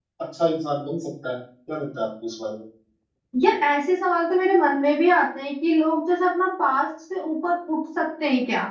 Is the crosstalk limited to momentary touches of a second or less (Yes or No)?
Yes